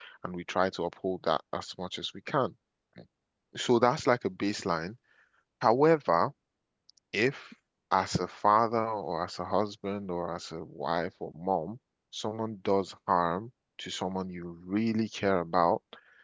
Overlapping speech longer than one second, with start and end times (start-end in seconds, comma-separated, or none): none